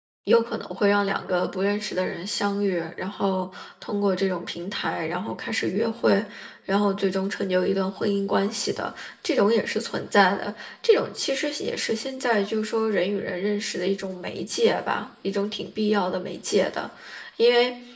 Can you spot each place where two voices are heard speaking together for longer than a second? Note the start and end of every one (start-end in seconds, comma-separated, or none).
none